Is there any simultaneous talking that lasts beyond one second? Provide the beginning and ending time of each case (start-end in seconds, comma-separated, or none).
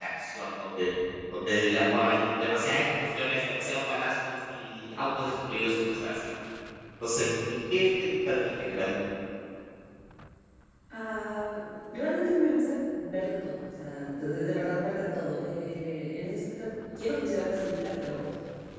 none